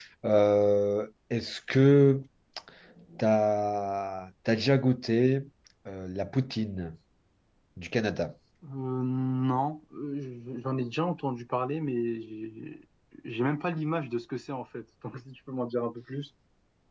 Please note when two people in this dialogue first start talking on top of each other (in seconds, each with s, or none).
none